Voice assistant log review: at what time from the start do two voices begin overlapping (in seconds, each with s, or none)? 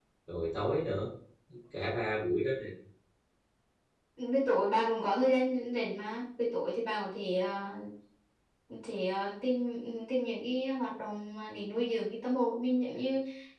none